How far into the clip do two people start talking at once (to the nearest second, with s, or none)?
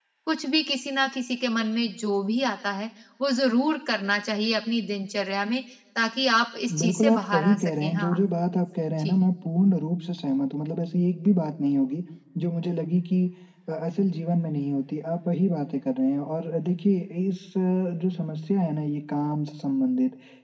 7 s